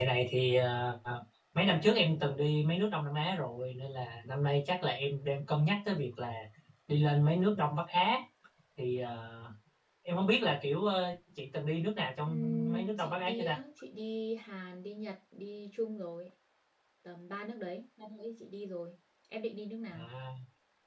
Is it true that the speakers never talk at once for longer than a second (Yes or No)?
No